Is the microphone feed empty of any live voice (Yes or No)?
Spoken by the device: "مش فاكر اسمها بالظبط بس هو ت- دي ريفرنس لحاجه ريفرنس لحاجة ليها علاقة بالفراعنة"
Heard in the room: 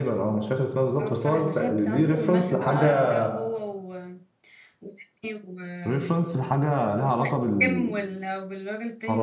No